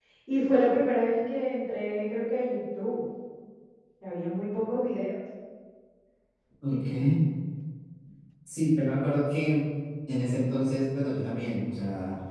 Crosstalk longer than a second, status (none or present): none